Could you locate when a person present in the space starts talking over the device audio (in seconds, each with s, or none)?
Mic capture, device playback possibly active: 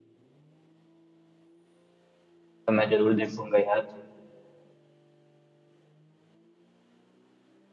2.7 s